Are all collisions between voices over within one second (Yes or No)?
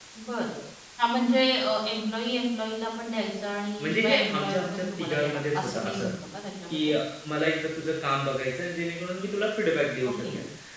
No